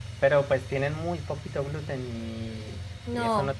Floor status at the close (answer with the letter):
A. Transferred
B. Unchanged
A